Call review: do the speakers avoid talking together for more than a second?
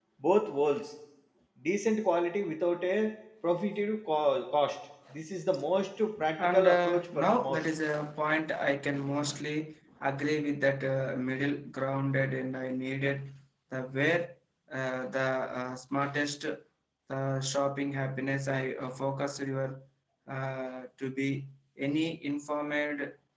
No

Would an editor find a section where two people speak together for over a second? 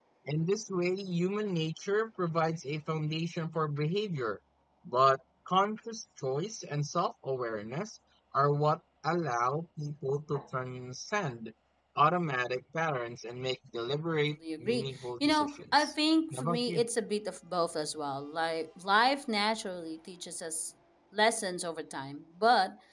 Yes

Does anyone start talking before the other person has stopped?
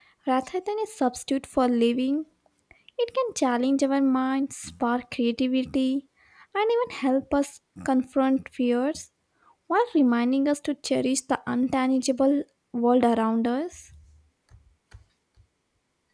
No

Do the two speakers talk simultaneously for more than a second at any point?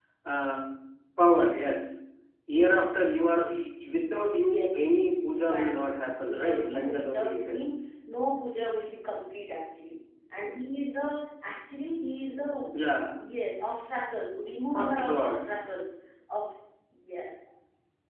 Yes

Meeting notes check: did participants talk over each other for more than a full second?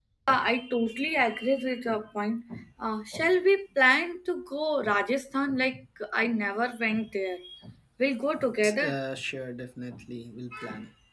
No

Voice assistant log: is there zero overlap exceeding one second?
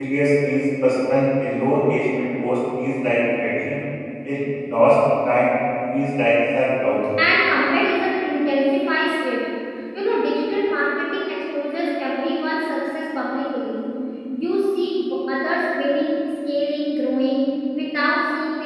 Yes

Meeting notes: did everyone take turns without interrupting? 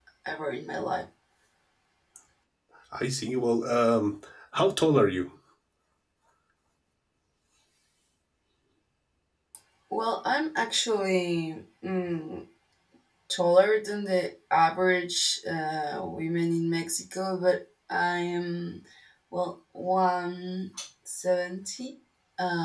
Yes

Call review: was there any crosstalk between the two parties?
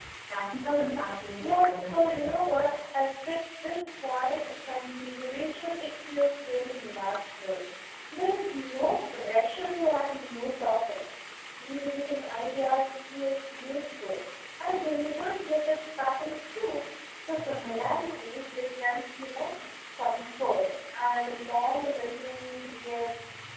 Yes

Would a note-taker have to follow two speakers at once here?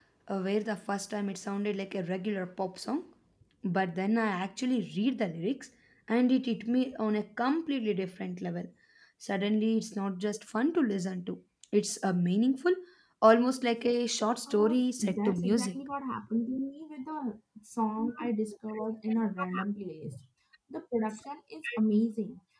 Yes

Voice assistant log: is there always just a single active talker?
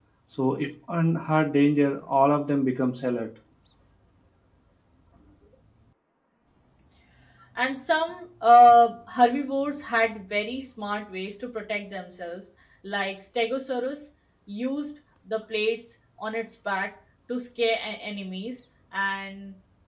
Yes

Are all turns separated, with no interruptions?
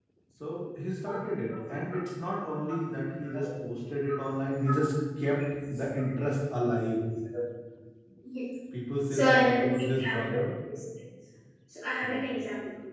No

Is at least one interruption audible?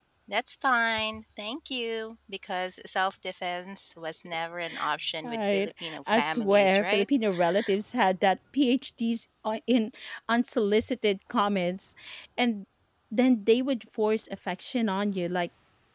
Yes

